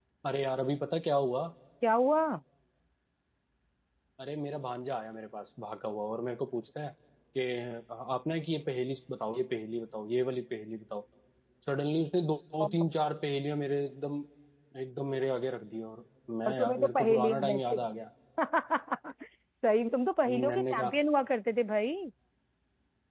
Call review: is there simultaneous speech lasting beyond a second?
Yes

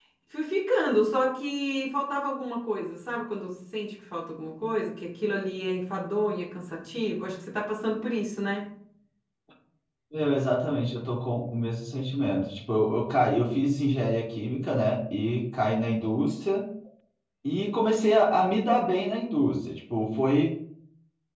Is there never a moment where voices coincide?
Yes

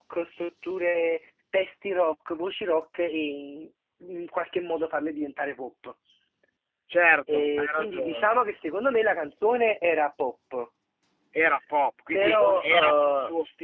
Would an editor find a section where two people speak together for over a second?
Yes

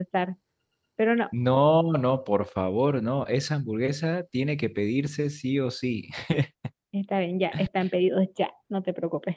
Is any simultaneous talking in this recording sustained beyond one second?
No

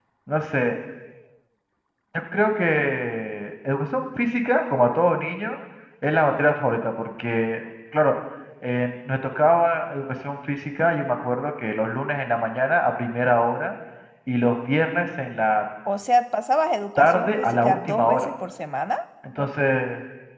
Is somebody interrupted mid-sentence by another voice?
Yes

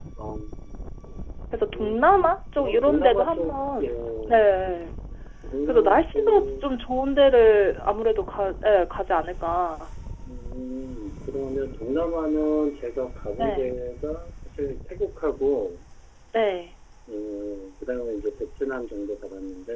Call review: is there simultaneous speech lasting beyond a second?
Yes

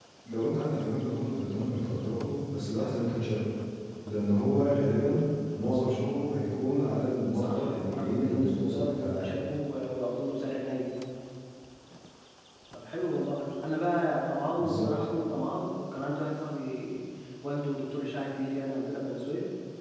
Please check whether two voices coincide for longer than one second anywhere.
Yes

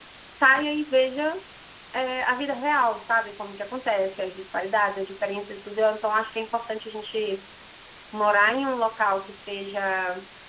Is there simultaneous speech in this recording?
No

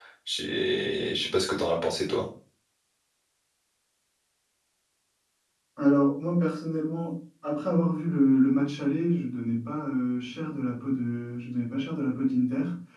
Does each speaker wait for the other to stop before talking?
Yes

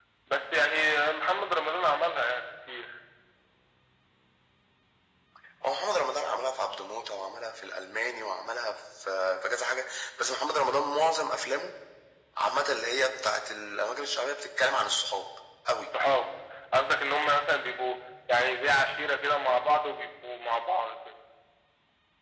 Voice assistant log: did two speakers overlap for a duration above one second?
No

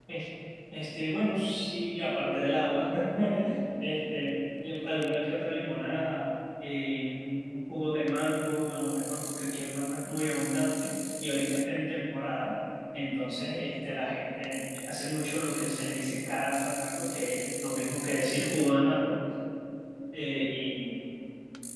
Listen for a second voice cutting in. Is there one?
No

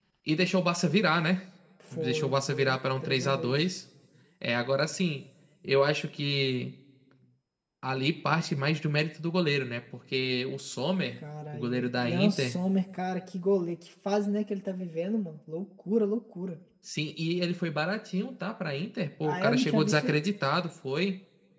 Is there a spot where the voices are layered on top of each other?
Yes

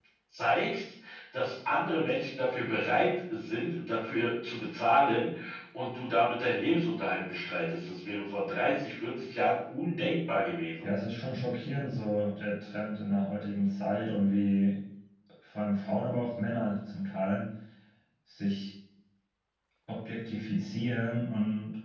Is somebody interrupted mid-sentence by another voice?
No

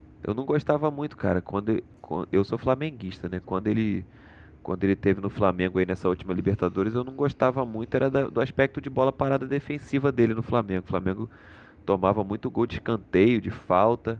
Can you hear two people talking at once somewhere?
No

